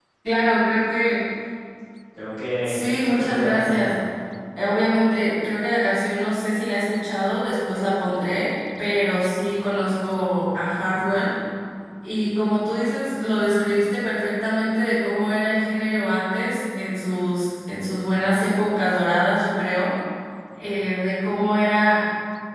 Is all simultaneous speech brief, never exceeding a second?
No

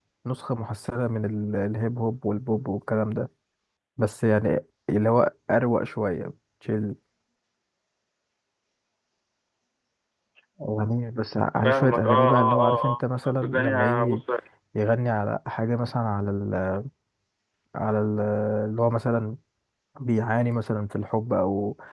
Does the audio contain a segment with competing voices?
Yes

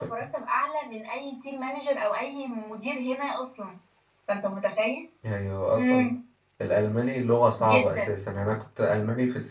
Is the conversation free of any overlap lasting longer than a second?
Yes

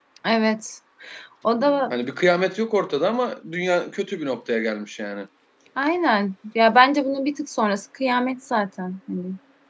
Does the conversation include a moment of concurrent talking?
No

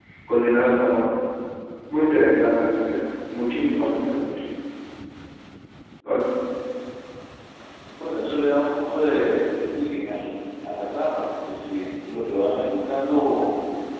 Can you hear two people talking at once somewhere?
No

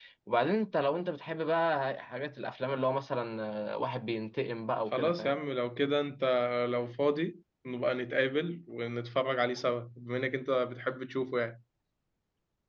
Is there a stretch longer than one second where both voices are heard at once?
No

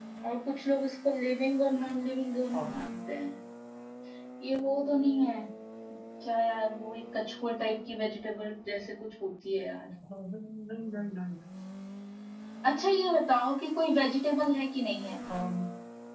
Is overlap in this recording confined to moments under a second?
Yes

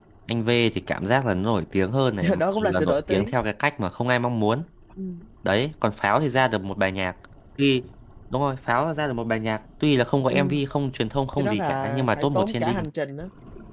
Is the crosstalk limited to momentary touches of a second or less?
No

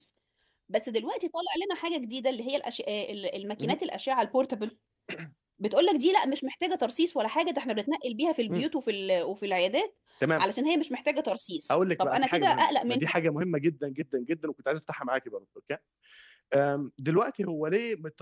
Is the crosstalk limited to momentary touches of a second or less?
No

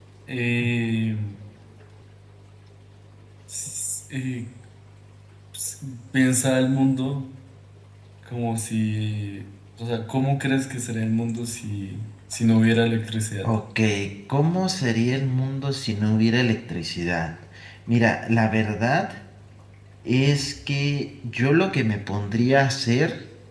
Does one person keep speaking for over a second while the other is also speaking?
No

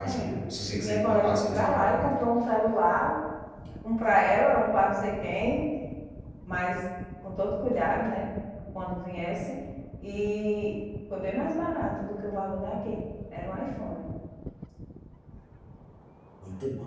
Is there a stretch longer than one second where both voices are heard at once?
Yes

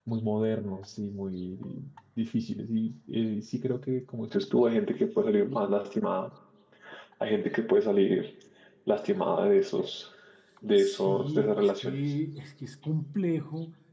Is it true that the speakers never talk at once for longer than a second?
No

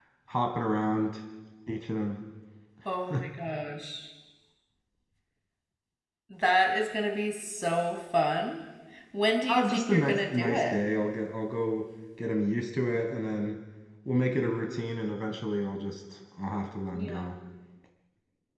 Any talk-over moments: Yes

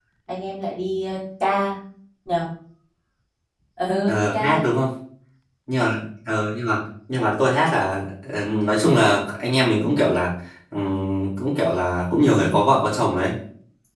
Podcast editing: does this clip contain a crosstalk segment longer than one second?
No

